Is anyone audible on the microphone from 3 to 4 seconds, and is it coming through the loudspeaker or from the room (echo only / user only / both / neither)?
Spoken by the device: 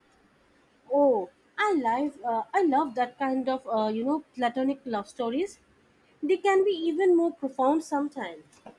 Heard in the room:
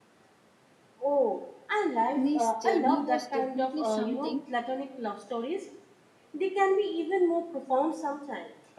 both